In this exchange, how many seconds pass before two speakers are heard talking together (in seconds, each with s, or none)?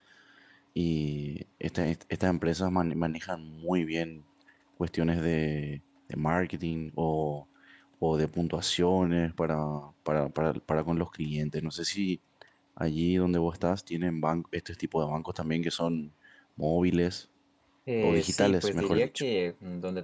18.0 s